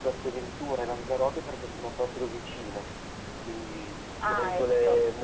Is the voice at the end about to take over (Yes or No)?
No